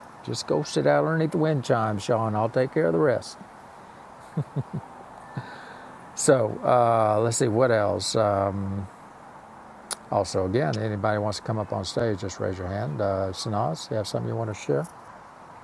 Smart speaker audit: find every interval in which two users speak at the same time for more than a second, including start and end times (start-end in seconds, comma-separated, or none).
none